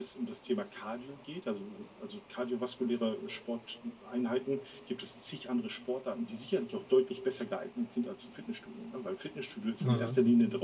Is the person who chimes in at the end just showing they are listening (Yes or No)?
Yes